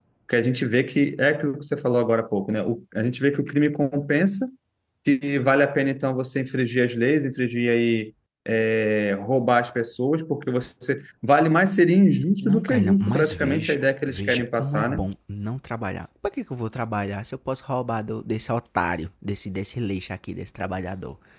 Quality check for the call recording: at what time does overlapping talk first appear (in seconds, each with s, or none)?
12.4 s